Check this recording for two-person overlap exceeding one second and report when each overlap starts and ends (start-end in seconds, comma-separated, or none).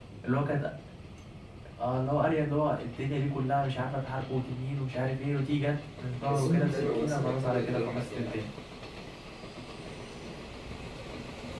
6.2-8.4